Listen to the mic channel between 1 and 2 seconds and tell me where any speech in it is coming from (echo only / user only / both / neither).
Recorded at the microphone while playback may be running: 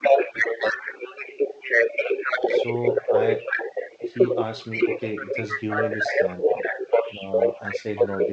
echo only